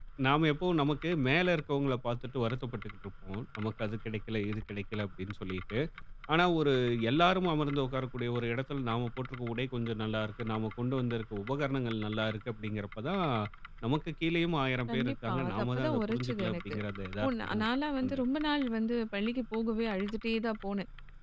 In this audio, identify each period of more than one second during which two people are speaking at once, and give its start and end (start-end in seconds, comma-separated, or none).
14.9-16.8